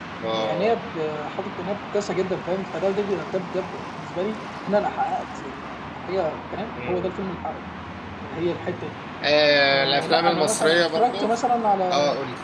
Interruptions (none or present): present